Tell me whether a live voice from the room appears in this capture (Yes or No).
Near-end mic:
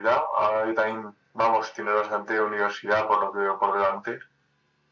No